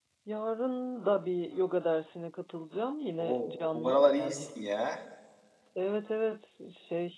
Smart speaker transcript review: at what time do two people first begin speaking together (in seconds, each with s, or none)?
3.2 s